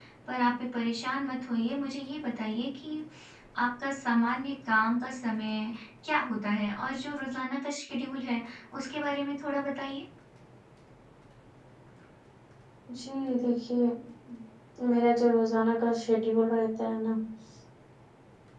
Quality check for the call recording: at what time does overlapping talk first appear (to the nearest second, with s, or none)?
none